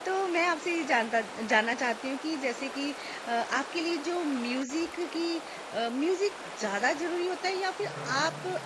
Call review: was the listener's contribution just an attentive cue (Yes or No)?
Yes